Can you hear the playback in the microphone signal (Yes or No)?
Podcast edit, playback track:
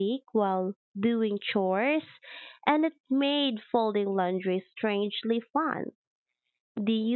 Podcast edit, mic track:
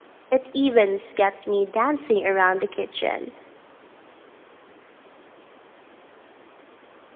No